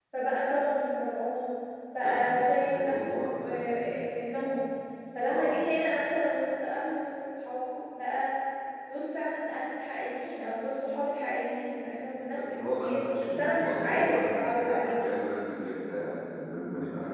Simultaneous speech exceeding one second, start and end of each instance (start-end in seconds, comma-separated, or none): 2.0-3.9, 12.3-14.9